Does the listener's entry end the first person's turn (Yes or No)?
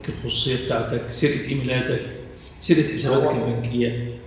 No